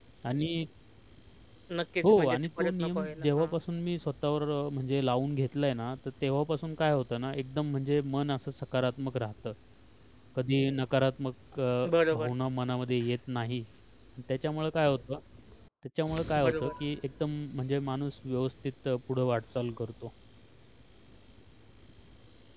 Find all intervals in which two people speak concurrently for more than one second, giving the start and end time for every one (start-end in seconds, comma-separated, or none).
2.0-3.5